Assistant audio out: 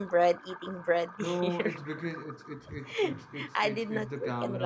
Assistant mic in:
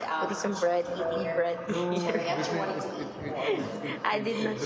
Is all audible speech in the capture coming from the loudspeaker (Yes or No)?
No